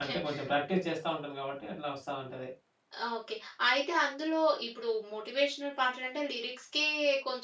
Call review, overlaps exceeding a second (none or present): none